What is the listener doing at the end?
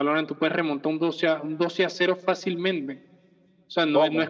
listening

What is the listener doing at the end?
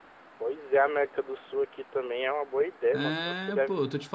taking over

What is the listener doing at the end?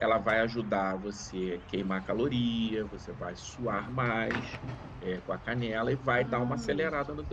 listening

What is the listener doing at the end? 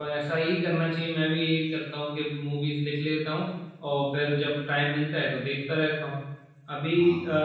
listening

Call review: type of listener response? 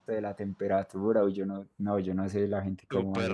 taking over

